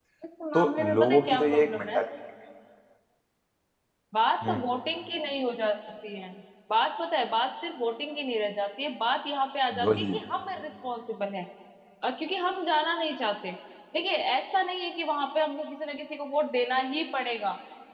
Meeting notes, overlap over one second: present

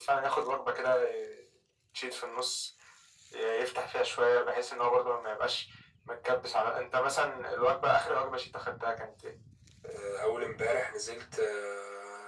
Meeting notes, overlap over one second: none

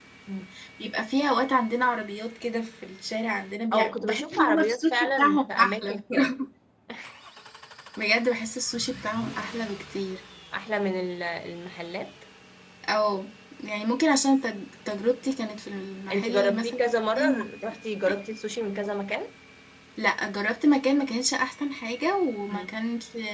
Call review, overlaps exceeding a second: present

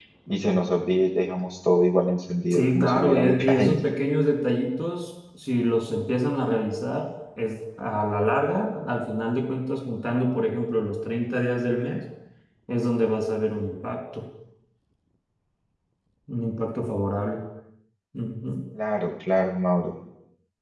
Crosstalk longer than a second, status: present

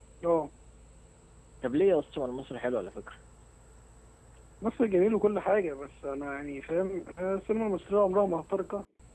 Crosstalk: none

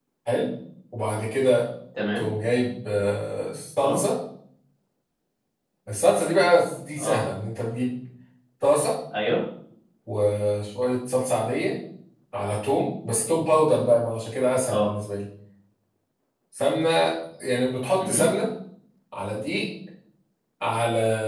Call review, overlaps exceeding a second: none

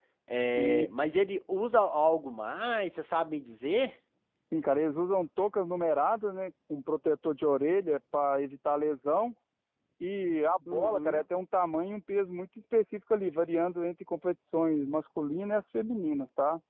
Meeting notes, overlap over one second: none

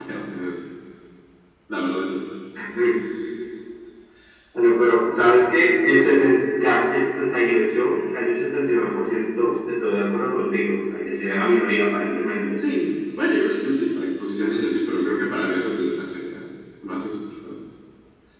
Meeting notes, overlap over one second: none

